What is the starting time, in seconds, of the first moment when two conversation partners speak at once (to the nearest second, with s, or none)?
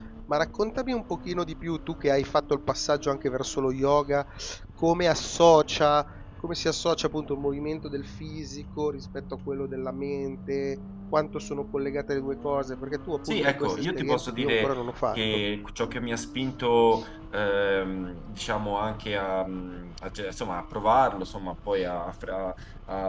13 s